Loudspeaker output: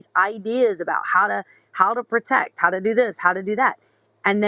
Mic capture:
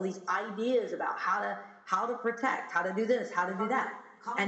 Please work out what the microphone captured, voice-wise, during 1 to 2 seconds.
echo only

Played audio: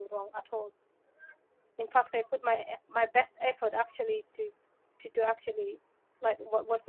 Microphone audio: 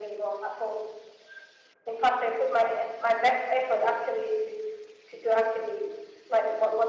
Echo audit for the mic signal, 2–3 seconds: echo only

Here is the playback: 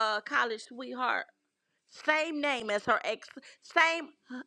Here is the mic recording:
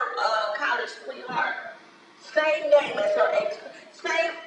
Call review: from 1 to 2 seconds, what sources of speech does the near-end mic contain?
echo only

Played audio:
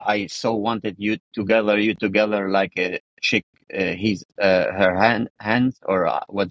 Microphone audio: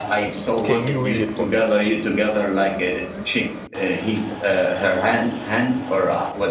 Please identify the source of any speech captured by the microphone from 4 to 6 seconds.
echo only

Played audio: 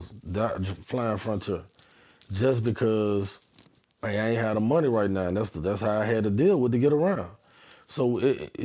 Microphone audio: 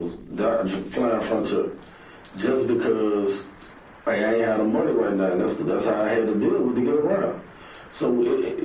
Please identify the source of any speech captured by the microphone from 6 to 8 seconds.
echo only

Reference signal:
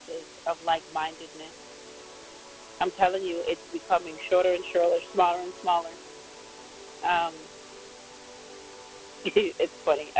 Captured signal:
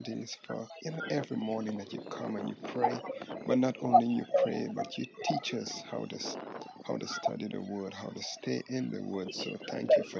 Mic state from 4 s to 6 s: both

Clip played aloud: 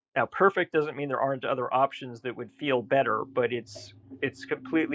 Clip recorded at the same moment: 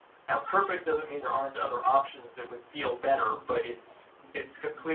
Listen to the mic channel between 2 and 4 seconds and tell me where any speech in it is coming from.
echo only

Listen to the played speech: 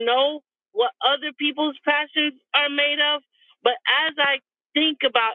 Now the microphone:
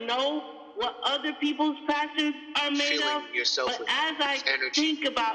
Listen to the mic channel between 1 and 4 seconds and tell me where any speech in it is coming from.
both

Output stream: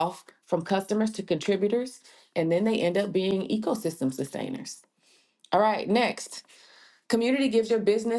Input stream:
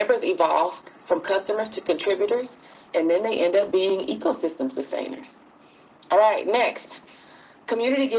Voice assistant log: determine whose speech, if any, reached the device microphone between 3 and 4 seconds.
echo only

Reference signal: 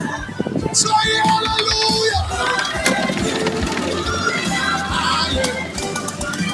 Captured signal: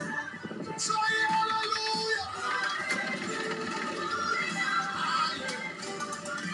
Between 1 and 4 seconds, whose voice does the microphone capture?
echo only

